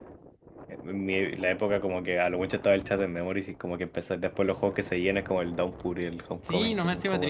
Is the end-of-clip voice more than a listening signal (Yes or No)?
Yes